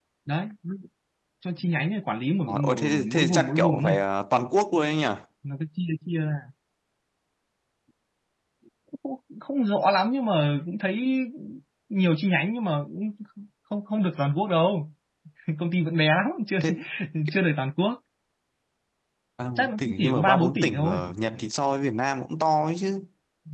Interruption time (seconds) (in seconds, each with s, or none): 2.5 s